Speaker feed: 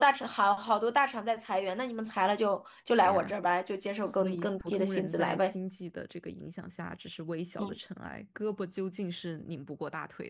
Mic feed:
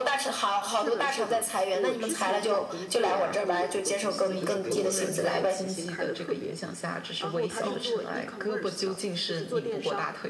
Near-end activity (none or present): present